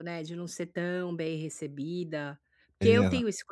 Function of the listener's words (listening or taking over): listening